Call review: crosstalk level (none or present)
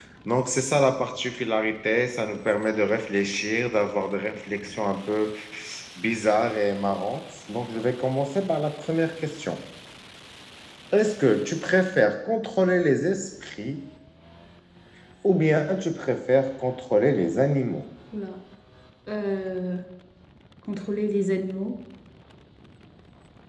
none